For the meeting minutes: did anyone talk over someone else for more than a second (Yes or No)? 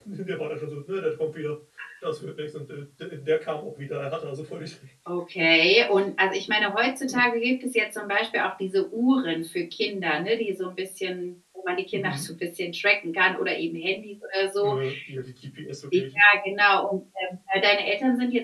No